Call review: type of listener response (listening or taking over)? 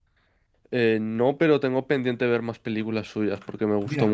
taking over